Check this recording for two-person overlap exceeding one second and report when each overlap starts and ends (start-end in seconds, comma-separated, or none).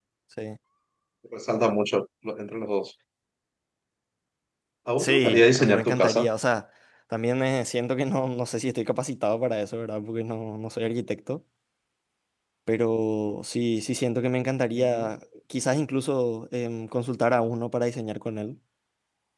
5.0-6.3